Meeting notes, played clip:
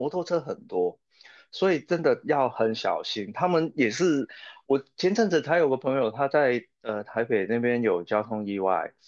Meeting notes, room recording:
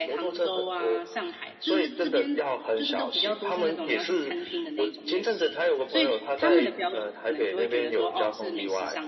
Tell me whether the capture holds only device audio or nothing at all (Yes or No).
No